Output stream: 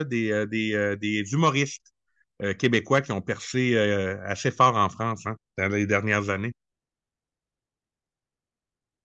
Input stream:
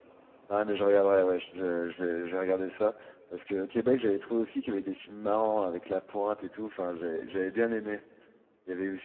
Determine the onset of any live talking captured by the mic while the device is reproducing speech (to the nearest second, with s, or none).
0 s